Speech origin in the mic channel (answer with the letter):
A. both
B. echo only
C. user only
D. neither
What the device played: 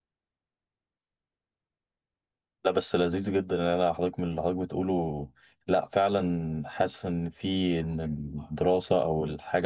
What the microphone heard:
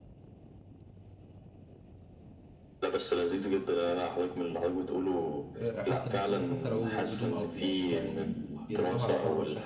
A